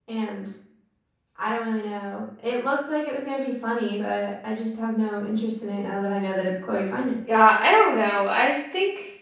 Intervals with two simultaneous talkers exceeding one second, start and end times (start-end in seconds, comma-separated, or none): none